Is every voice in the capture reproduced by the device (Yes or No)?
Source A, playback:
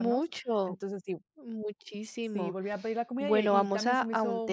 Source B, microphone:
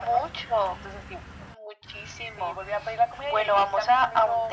Yes